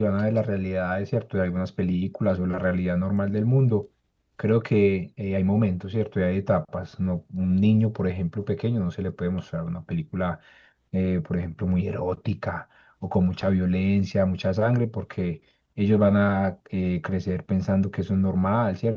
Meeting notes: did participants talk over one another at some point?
No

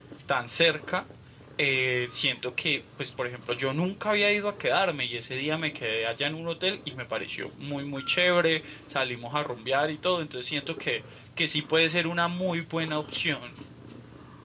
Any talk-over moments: No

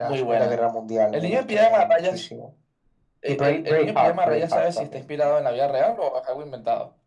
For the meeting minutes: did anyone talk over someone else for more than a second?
Yes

